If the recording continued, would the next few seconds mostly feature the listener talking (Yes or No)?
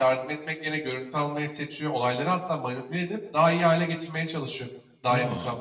No